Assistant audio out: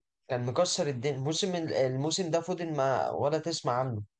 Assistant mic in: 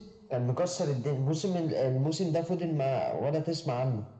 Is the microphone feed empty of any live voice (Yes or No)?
Yes